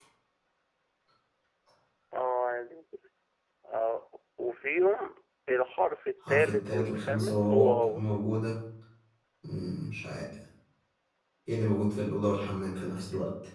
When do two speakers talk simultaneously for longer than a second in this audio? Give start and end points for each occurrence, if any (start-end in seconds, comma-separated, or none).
6.3-8.0